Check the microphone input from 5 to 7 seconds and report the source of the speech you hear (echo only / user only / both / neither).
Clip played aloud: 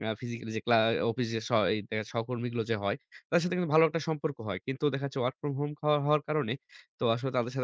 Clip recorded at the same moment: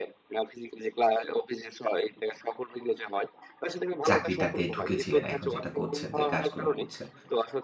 both